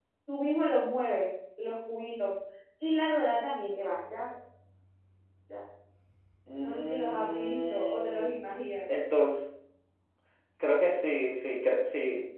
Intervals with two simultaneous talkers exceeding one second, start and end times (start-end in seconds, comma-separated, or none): 6.6-8.3